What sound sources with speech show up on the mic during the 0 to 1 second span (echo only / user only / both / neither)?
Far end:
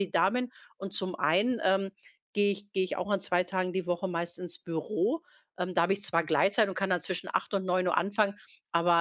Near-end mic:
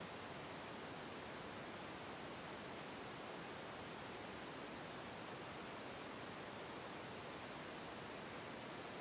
neither